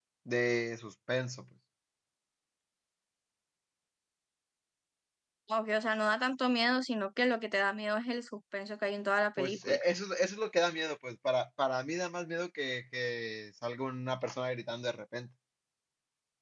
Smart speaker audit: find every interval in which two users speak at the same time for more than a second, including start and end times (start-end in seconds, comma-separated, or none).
none